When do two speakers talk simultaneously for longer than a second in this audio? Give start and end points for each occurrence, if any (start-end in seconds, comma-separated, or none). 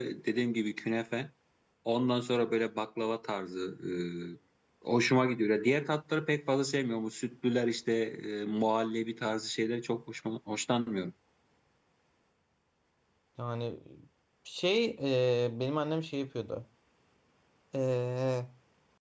none